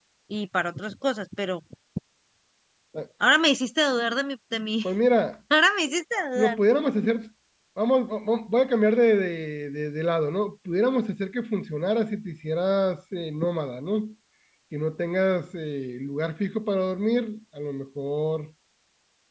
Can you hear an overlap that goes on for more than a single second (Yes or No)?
No